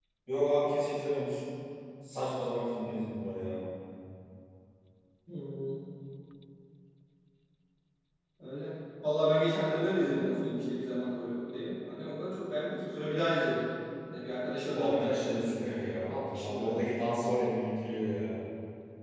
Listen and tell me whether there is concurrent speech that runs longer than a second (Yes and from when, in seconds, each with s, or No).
Yes, from 14.8 s